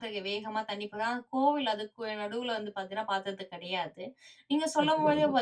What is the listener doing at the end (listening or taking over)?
listening